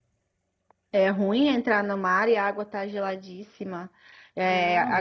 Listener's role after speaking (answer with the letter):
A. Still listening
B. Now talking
A